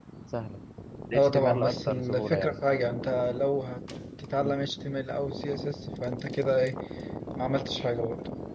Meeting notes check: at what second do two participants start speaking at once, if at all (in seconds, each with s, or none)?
1.1 s